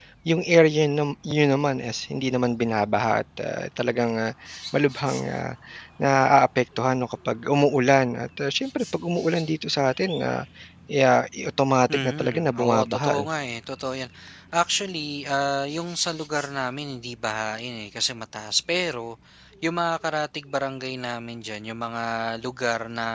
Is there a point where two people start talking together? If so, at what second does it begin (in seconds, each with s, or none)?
11.9 s